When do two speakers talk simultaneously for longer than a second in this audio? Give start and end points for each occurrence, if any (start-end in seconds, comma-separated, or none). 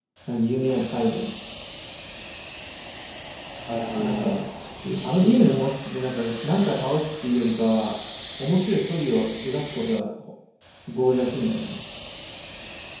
none